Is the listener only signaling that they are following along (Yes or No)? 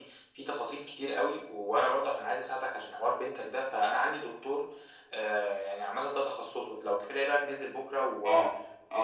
No